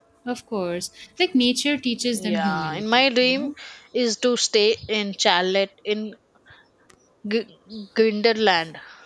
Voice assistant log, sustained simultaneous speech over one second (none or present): present